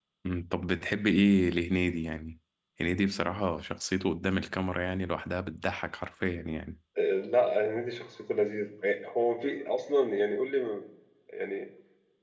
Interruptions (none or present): none